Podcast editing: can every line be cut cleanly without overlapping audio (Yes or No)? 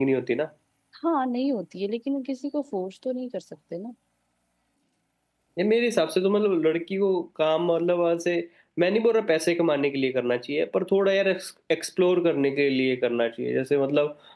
Yes